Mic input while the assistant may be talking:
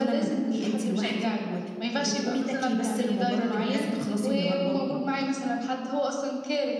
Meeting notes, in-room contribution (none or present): none